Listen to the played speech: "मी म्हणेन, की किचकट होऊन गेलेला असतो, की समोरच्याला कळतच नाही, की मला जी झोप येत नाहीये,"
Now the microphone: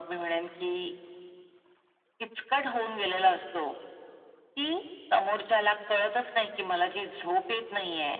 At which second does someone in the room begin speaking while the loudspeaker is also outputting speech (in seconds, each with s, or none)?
none